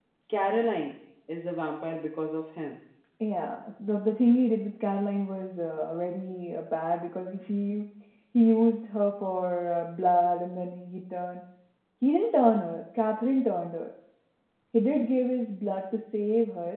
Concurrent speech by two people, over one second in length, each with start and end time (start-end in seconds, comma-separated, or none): none